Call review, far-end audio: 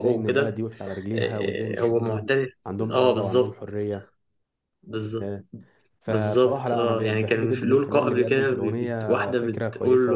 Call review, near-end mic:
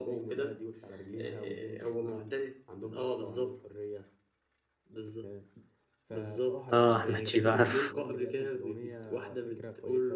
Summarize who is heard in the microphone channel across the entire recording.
both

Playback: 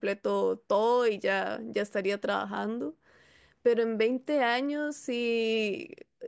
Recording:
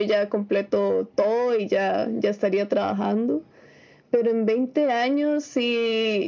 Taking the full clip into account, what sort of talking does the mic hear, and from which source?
echo only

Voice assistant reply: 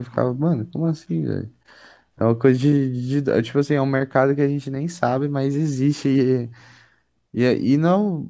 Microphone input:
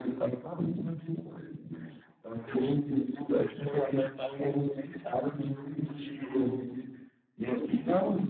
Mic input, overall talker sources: echo only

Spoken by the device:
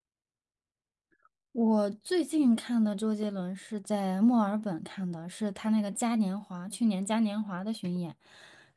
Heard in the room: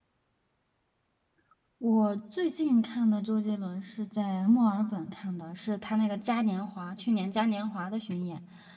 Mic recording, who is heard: echo only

